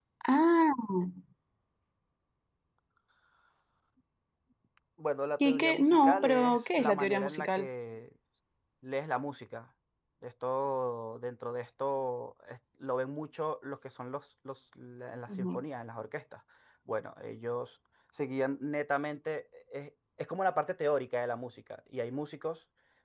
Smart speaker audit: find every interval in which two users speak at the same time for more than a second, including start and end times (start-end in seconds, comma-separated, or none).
5.4-7.7